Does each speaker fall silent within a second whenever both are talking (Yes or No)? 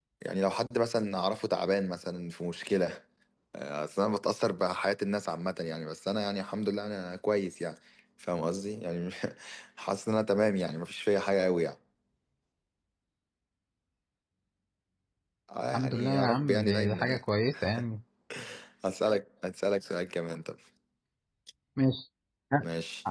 No